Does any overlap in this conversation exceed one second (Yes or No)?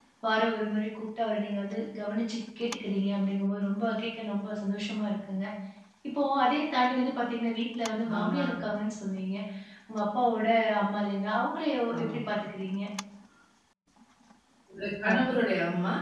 No